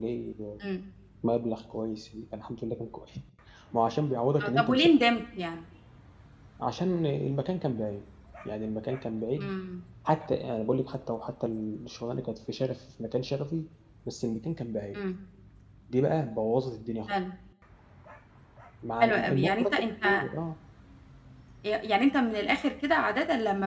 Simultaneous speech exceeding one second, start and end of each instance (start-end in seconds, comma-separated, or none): 19.0-20.2